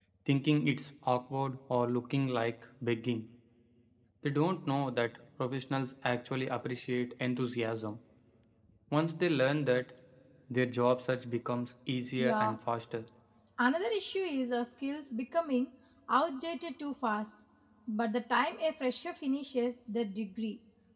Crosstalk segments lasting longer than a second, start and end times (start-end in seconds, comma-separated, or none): none